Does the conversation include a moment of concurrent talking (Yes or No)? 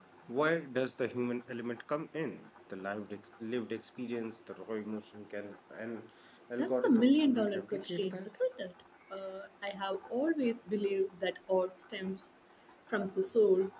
Yes